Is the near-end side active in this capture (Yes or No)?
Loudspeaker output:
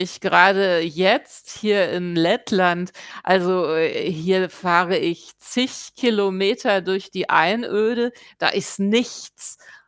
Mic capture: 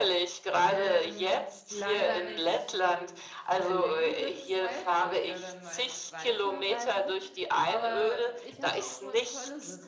Yes